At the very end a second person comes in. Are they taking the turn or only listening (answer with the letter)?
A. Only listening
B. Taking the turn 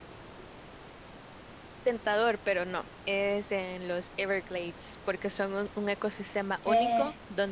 A